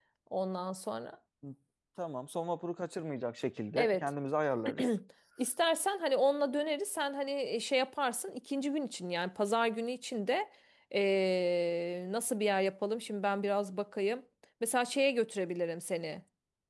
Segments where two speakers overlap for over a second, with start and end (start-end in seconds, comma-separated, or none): none